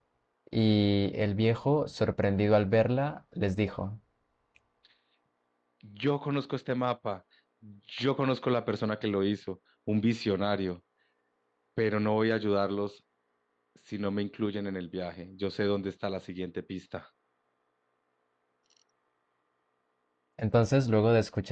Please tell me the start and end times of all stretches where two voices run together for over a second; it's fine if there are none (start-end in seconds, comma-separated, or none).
none